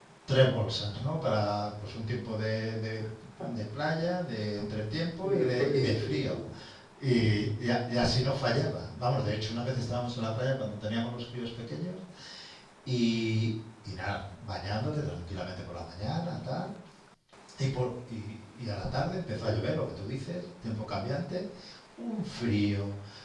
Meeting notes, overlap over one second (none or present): present